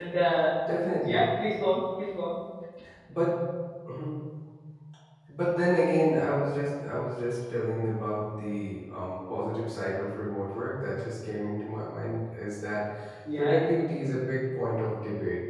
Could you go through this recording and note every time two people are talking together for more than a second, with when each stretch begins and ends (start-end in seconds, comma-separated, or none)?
none